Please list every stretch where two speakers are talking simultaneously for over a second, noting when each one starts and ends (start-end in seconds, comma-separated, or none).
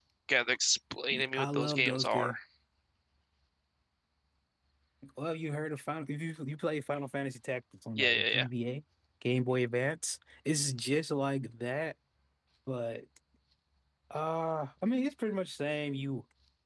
1.1-2.3